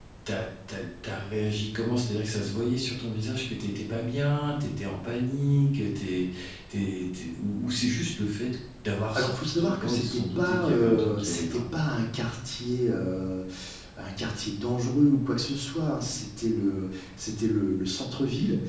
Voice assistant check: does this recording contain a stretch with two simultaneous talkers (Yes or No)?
Yes